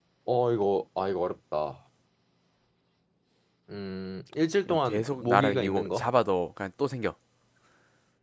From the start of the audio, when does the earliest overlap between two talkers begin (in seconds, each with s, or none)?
4.7 s